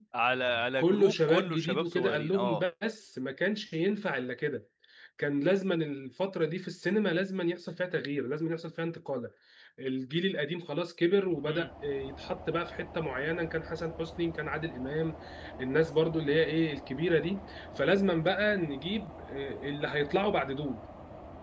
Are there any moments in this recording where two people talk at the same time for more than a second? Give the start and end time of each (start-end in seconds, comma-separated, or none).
0.8-2.6